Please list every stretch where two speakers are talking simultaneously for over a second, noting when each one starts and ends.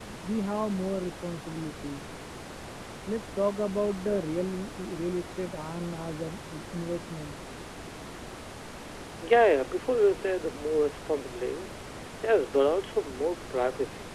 none

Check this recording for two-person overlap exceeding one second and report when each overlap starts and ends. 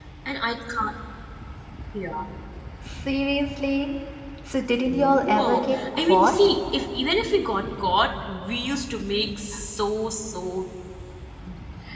4.9-6.3

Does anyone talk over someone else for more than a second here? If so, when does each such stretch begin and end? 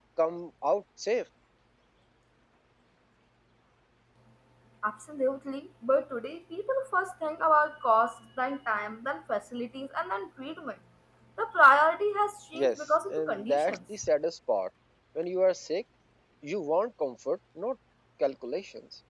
12.5-13.8

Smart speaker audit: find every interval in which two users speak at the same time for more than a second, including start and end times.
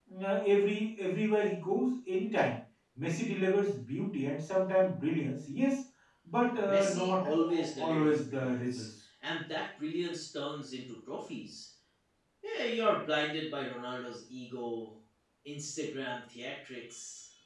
6.5-8.9

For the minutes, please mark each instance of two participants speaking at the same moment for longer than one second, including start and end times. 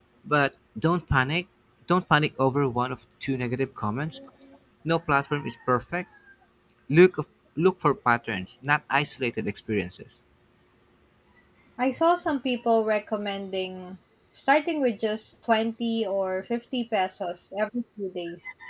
none

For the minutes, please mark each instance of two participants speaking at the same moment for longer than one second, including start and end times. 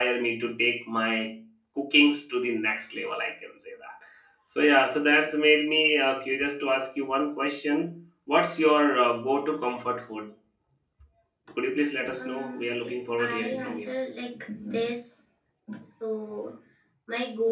12.2-13.9

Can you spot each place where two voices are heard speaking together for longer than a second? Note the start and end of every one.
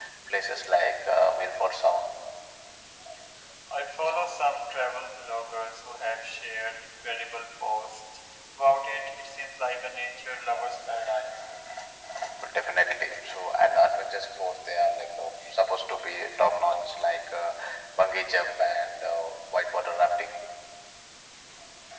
none

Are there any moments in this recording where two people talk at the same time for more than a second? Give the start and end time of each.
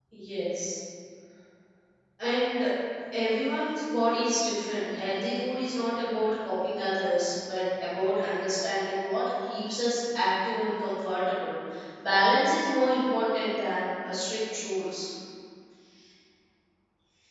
none

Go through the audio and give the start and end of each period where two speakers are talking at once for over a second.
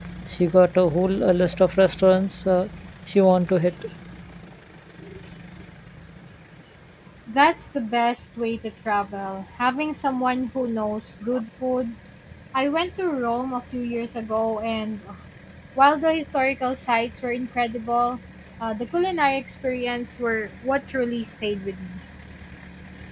none

